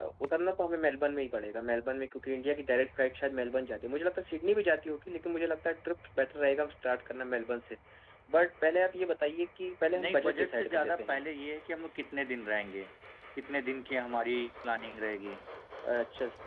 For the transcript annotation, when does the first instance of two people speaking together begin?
9.9 s

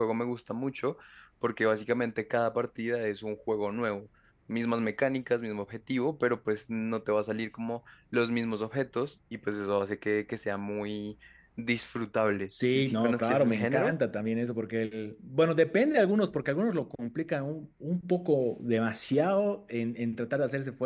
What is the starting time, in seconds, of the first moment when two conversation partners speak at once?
12.5 s

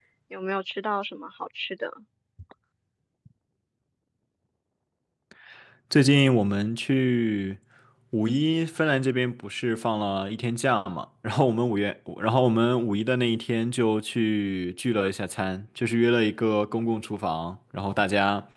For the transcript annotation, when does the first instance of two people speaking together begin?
none

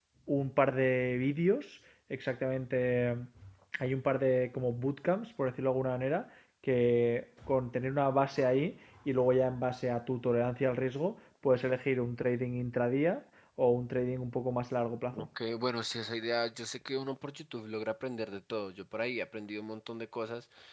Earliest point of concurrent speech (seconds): none

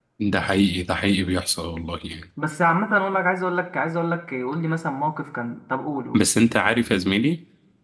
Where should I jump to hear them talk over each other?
none

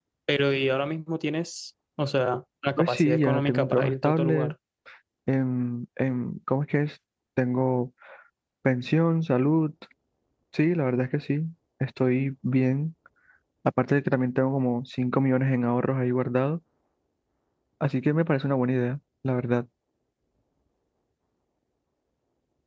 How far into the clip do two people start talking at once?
2.8 s

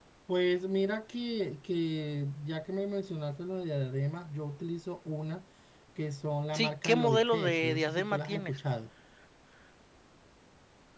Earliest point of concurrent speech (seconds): 6.5 s

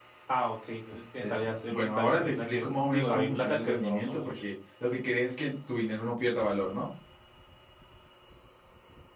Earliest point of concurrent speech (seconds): 1.2 s

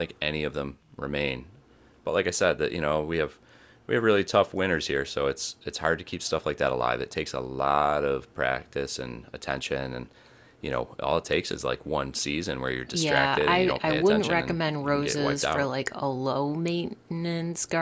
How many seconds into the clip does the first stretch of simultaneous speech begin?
12.9 s

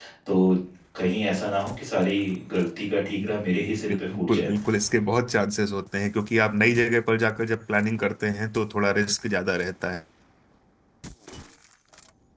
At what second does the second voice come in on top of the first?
3.2 s

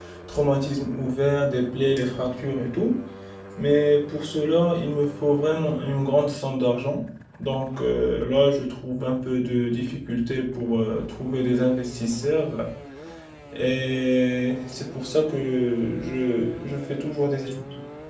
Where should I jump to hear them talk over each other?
none

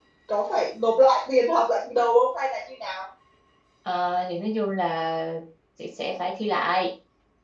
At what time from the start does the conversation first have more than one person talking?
none

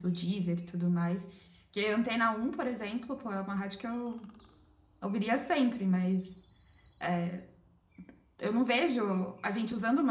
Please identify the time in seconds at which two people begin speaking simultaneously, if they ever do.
none

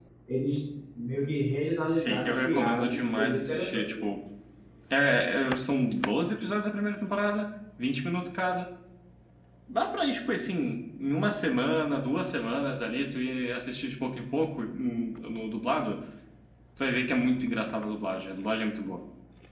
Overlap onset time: 1.9 s

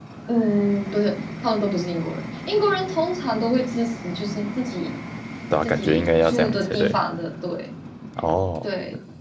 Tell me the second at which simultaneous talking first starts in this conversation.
5.6 s

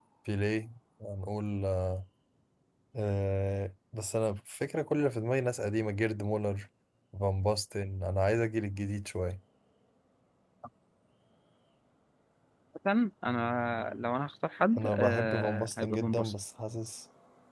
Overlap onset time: 14.8 s

